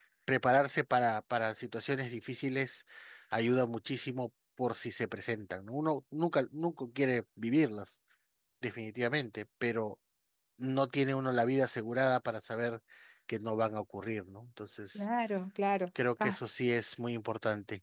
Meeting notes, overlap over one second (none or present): none